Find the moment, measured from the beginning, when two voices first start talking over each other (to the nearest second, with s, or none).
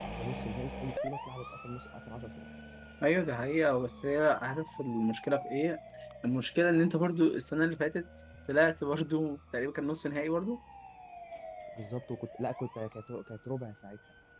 none